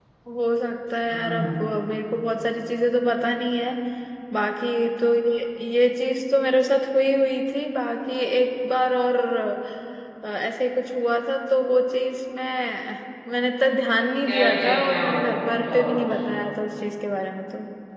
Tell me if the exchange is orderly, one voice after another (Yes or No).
No